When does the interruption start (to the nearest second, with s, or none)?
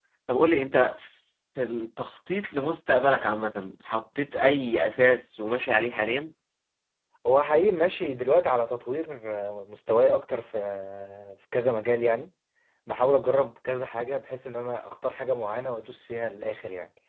none